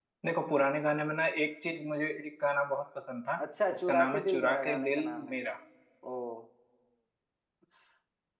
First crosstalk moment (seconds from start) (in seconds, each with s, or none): 3.8 s